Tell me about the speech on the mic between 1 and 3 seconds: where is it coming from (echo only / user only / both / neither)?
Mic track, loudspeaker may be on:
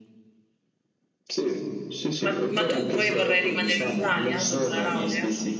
both